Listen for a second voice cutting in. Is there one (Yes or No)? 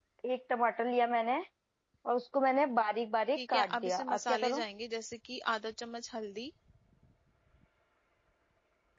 Yes